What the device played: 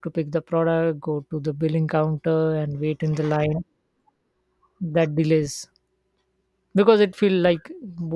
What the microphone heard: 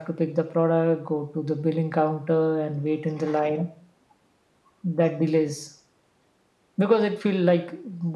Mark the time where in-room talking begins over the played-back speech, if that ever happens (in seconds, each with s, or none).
none